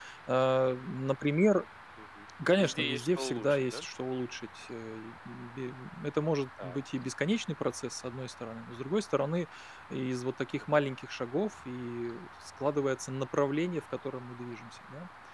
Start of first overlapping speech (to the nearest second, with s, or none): 3 s